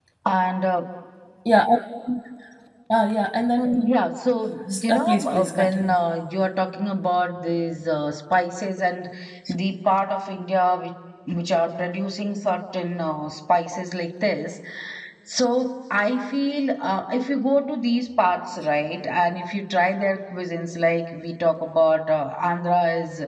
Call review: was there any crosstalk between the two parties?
Yes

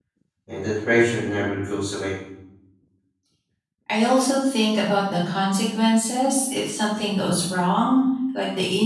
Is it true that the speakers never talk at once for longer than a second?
Yes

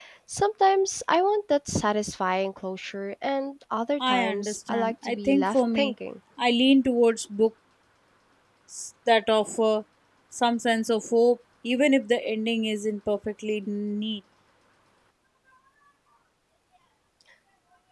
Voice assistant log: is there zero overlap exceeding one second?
No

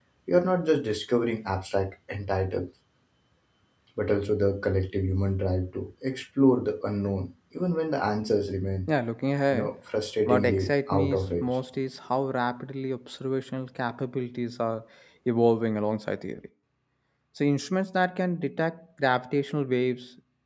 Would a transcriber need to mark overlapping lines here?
Yes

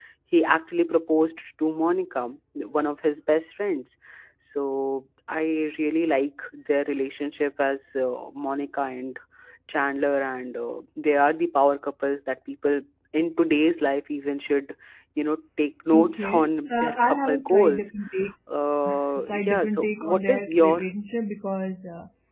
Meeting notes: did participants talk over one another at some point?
Yes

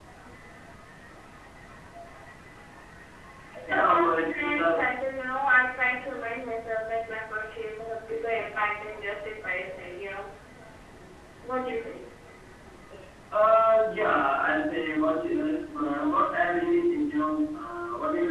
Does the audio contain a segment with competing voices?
Yes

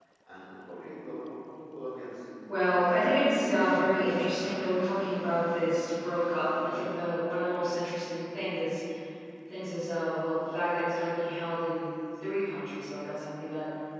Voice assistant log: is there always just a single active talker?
No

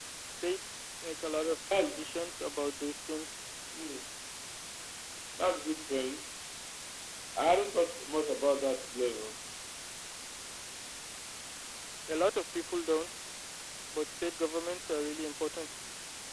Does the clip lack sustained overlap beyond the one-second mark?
Yes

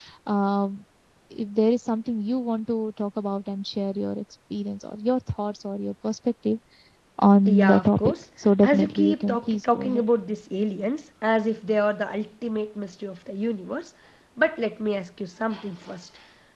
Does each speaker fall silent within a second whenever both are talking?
No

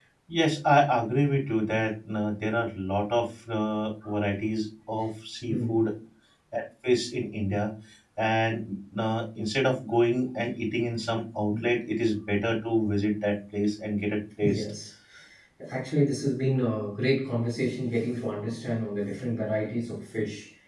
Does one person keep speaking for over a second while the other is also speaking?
No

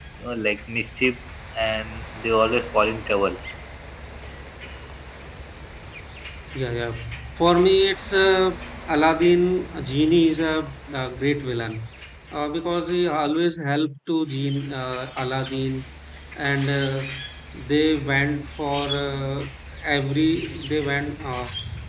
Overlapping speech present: No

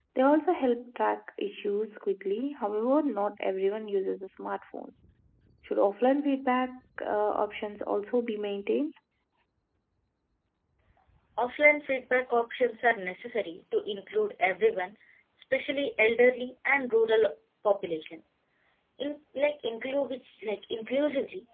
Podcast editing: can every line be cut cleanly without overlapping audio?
Yes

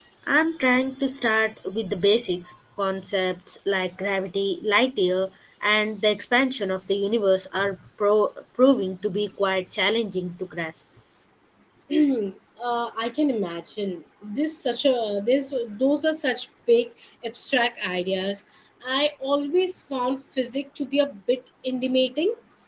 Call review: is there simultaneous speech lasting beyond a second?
No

